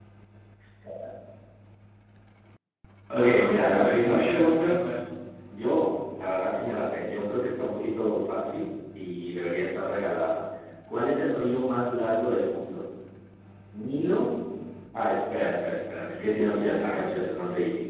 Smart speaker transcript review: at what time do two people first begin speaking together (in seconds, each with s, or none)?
3.2 s